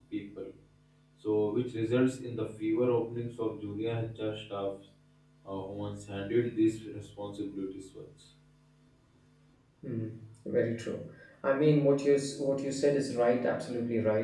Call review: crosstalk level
none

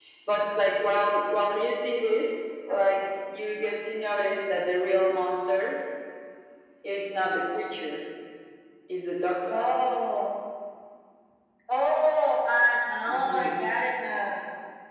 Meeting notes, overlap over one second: none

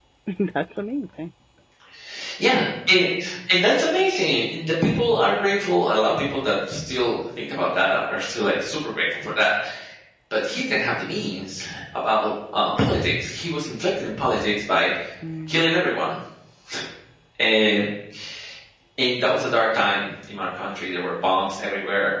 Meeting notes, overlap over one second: none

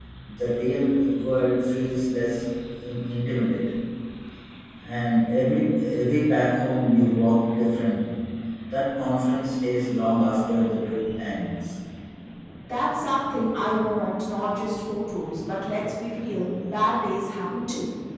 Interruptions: none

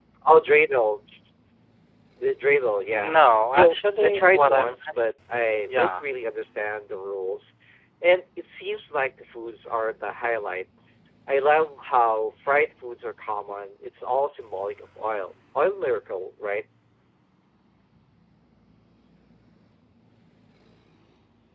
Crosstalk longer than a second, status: present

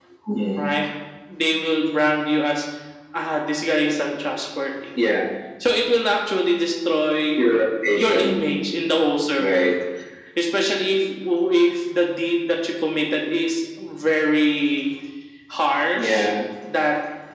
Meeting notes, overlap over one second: none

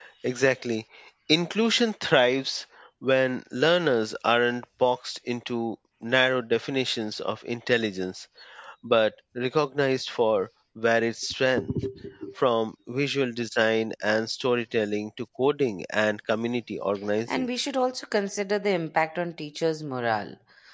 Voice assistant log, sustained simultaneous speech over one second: none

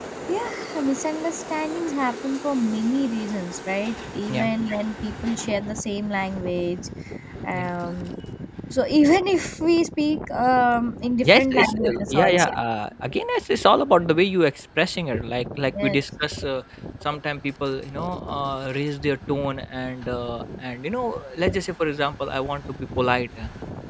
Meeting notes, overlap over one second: present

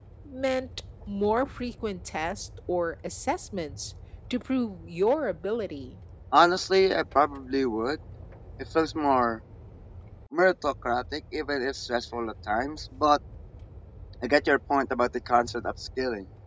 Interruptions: none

